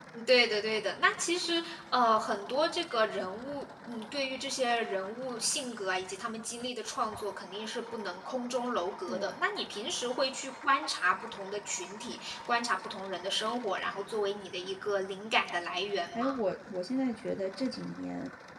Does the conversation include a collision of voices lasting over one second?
No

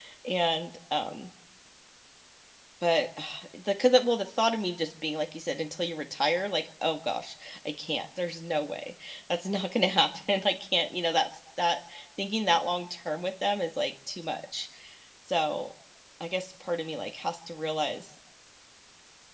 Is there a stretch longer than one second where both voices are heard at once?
No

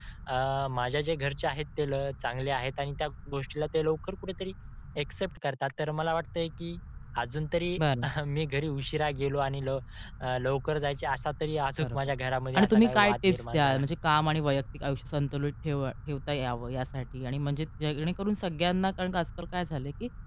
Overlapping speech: Yes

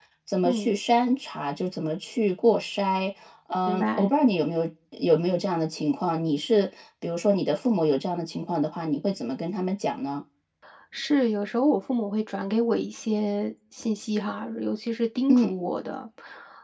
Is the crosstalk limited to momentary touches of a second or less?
Yes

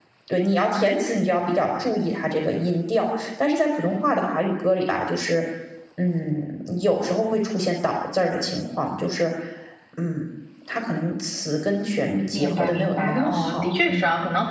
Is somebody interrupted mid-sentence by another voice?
Yes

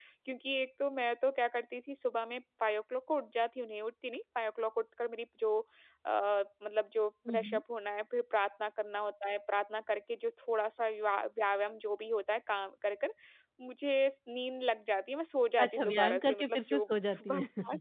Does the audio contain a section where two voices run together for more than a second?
Yes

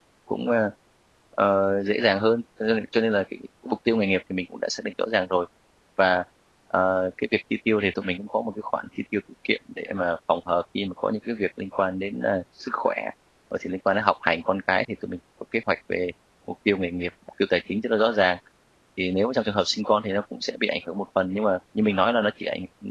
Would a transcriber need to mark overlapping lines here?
No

